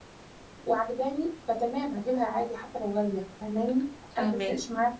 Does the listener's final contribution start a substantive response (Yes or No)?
No